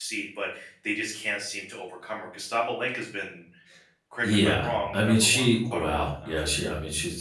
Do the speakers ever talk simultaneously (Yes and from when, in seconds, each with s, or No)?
Yes, from 4.2 s